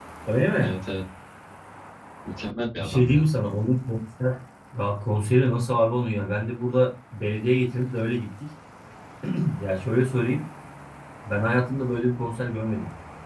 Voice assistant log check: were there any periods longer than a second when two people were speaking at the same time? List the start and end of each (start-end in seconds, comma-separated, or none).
none